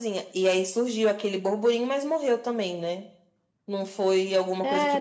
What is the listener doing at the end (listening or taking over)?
taking over